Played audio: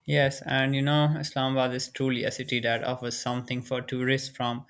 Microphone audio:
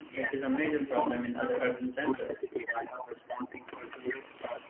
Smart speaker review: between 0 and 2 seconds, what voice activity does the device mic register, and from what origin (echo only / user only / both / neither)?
both